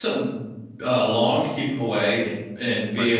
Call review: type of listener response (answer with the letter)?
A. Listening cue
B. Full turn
A